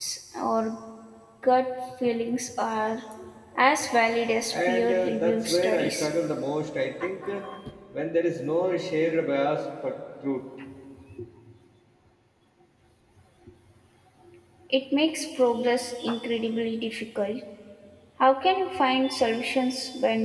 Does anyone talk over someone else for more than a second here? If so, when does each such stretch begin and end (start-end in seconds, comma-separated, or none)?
4.5-6.1